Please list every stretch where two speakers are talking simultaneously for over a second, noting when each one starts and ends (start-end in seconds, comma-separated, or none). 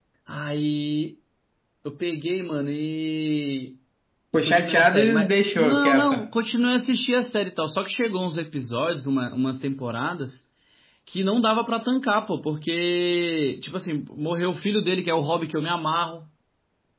4.3-6.2